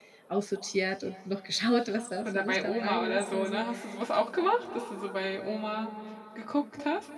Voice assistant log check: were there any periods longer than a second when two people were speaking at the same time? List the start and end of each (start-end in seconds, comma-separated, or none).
2.2-3.6